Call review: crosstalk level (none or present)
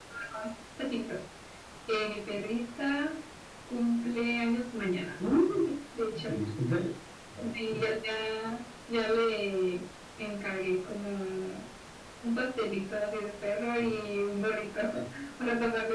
none